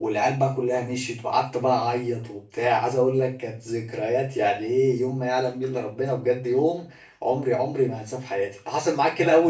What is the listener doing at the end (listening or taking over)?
taking over